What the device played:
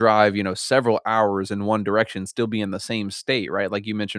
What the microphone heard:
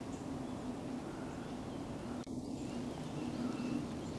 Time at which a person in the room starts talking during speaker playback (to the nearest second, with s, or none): none